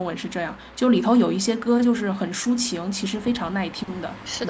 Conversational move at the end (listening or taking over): taking over